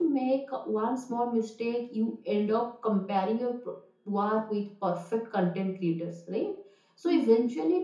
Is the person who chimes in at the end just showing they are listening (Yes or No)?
Yes